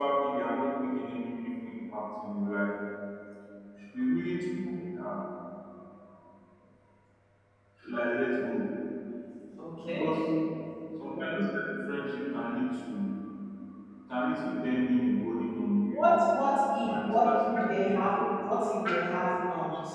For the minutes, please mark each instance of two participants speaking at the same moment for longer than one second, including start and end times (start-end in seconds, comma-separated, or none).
16.9-18.2